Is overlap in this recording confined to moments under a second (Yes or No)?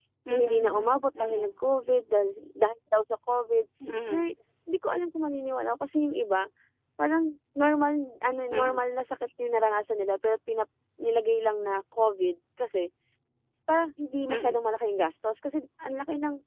No